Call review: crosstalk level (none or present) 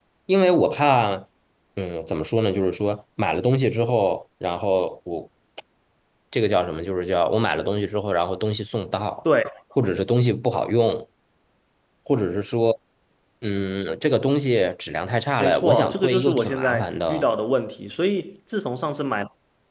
present